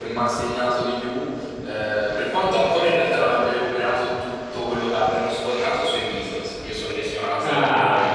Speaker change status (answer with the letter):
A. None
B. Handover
B